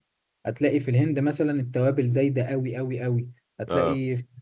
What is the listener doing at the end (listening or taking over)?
listening